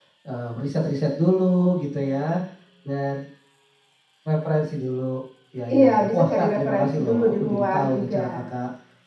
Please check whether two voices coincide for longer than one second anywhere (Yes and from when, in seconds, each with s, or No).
Yes, from 5.7 s